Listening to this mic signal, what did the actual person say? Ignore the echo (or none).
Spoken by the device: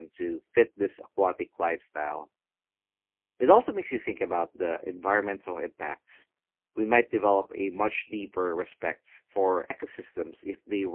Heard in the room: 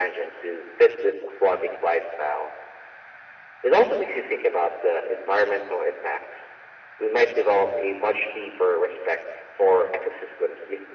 none